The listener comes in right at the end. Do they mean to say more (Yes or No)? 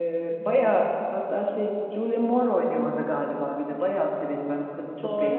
Yes